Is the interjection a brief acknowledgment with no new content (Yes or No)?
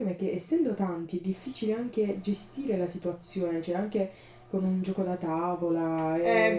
No